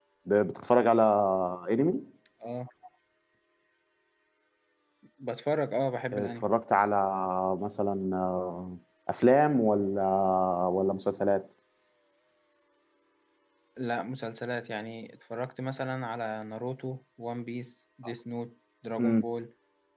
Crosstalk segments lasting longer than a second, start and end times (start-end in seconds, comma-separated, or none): none